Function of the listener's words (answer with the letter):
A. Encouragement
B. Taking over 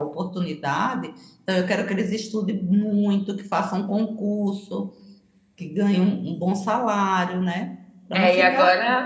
B